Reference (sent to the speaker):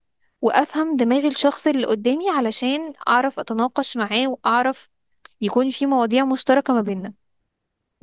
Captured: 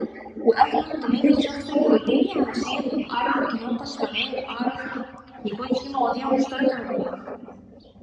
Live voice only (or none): none